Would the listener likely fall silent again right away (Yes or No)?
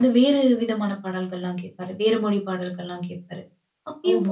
Yes